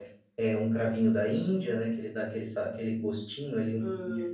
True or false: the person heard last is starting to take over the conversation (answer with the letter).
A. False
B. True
B